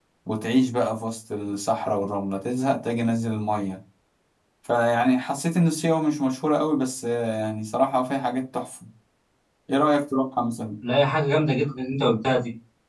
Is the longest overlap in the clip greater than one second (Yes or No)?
No